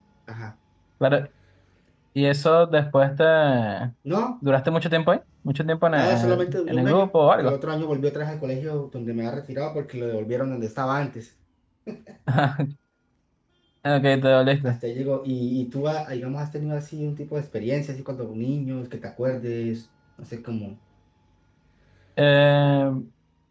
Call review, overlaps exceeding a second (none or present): present